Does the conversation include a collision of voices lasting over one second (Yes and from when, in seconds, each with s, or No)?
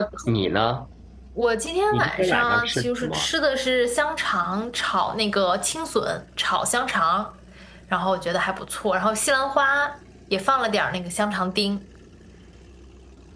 Yes, from 1.9 s